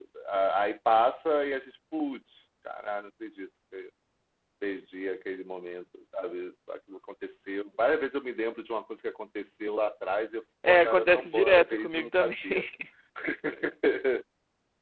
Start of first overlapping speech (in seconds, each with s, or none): 10.6 s